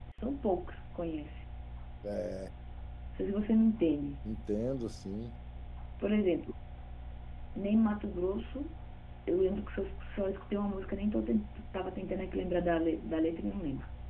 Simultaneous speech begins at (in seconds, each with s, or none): none